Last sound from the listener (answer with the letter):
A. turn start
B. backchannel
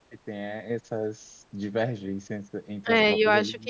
A